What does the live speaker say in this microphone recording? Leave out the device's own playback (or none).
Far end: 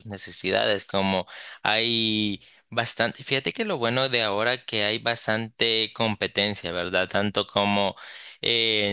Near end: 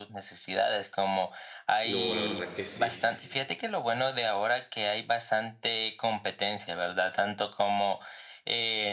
No, la verdad que sí.